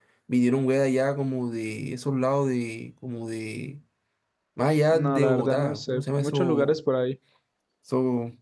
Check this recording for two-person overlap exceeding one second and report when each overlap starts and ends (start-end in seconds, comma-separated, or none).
4.9-6.8